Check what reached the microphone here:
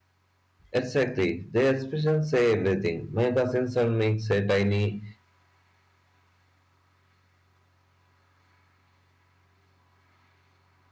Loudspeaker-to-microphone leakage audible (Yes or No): No